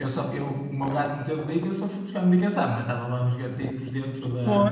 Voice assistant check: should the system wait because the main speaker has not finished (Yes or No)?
Yes